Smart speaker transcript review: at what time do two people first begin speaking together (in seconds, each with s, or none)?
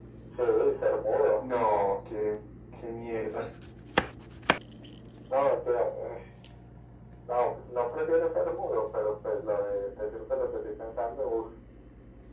none